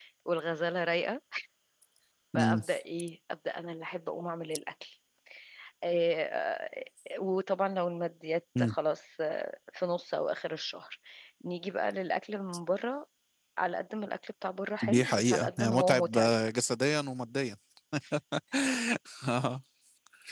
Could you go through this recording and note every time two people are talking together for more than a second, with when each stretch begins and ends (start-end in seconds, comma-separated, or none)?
14.8-16.3